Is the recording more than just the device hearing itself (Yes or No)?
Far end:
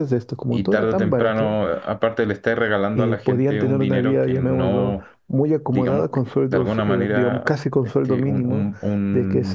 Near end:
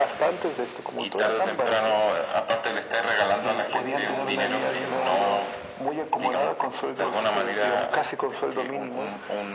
No